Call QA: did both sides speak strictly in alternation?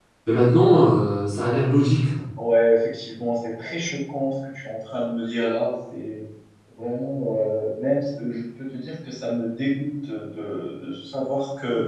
Yes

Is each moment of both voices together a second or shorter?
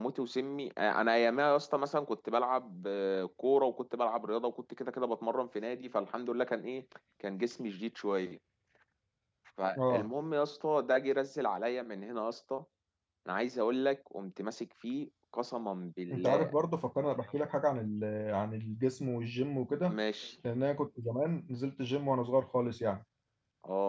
Yes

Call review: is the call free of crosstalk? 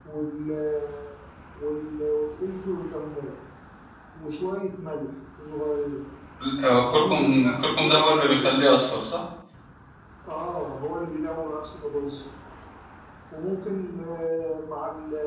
No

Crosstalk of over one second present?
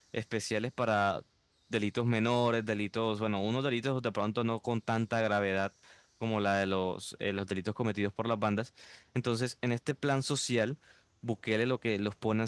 No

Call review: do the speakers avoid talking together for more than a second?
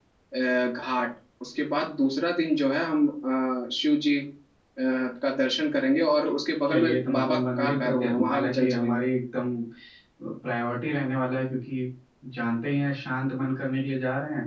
No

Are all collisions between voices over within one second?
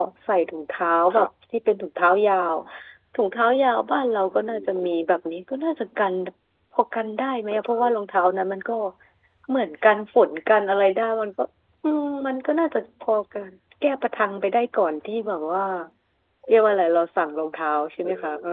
Yes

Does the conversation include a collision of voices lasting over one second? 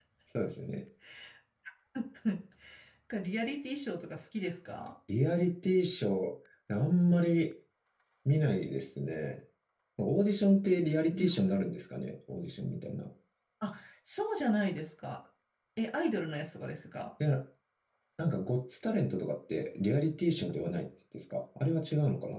No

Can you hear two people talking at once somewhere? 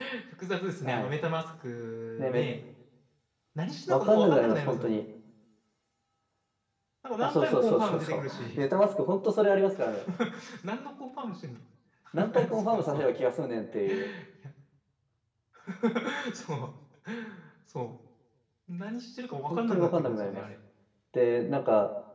Yes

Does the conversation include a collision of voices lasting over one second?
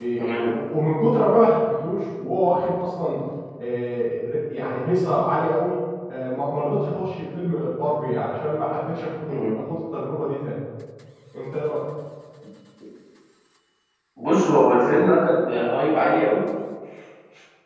No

